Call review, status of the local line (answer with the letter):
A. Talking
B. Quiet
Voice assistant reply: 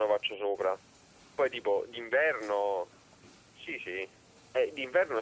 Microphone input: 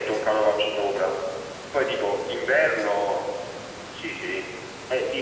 B